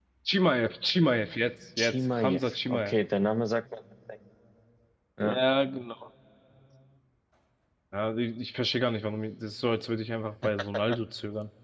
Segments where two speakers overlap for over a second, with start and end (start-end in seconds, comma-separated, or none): 1.8-3.0